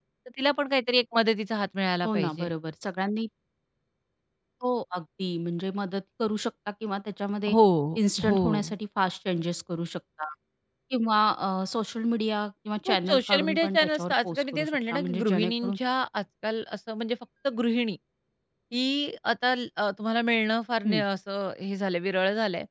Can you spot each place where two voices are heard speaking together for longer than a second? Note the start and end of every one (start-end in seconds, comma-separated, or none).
12.8-15.8